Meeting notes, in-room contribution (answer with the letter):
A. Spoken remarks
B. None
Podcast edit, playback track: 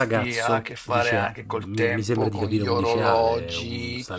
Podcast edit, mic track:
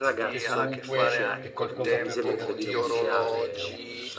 A